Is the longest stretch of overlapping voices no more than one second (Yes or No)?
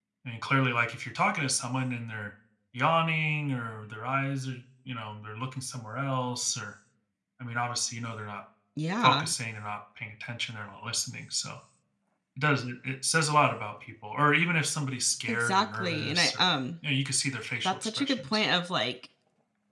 No